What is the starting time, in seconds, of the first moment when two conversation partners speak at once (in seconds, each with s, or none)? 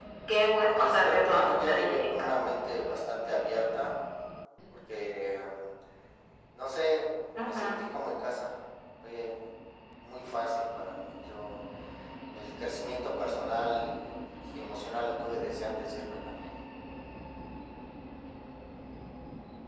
0.7 s